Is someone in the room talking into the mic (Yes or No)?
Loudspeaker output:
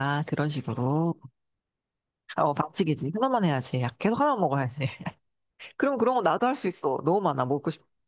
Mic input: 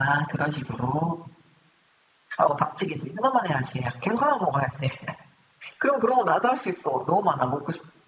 No